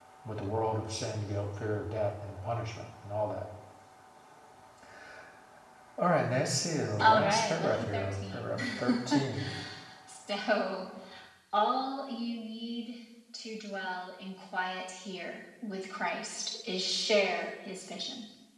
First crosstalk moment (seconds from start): 7 s

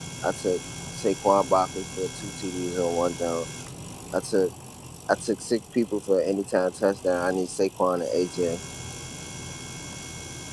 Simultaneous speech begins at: none

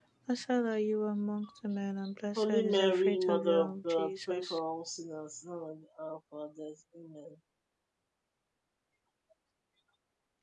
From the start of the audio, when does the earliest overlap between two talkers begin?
2 s

